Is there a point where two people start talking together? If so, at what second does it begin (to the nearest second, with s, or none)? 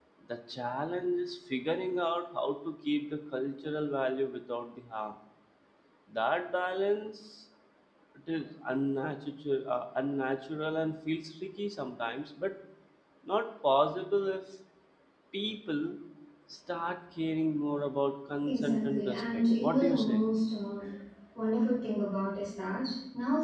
18 s